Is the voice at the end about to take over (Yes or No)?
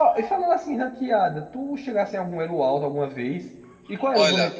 No